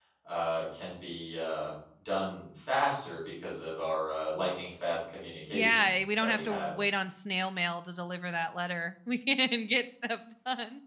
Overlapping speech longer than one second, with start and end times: 5.5-6.7

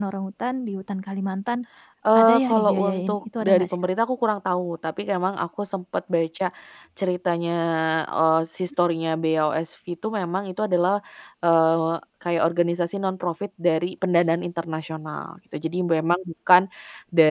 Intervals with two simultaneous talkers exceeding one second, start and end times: 2.2-3.7

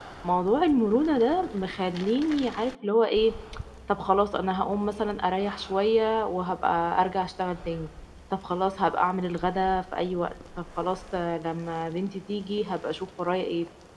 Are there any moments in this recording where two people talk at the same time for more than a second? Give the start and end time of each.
none

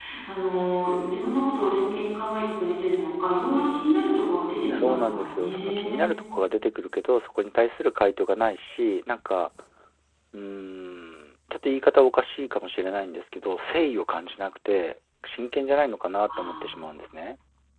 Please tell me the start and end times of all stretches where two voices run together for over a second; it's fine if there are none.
4.8-6.0

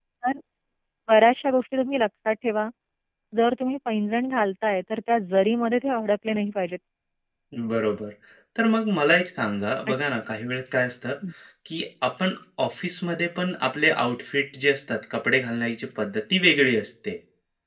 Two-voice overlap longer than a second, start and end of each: none

